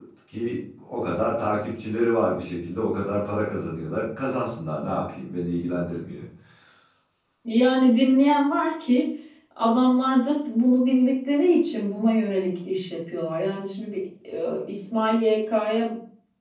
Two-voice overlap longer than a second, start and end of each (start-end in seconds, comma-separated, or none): none